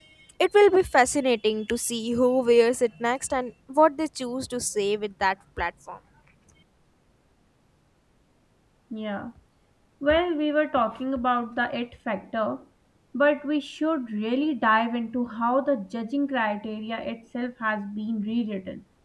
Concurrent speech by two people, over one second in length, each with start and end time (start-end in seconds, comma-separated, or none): none